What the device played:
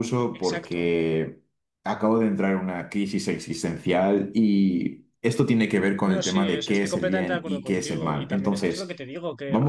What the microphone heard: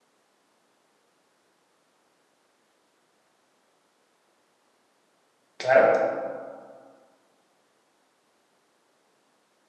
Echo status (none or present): none